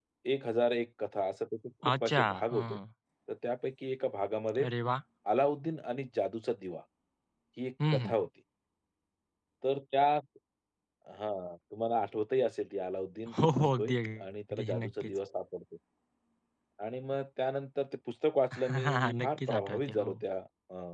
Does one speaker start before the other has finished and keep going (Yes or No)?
Yes